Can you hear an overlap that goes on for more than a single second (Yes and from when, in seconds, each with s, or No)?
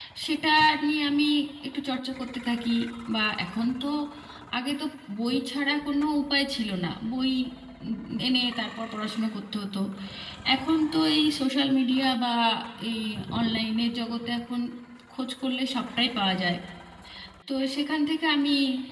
No